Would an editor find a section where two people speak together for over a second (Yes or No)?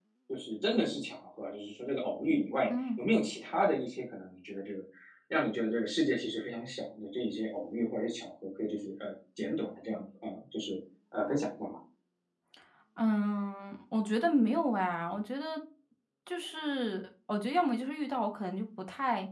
No